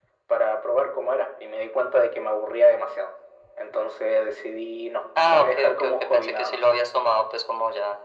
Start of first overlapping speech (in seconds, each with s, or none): 5.2 s